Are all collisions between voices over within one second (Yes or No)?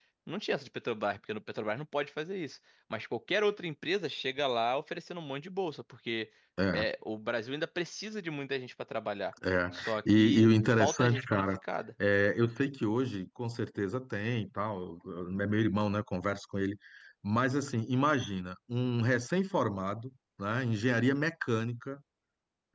No